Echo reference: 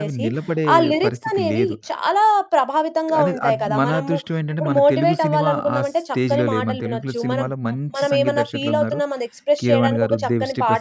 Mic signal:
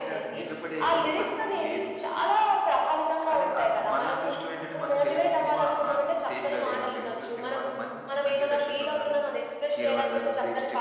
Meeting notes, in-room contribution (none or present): none